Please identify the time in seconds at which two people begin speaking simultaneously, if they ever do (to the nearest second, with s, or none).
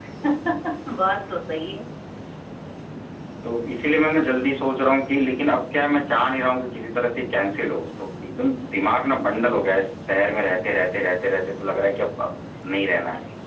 none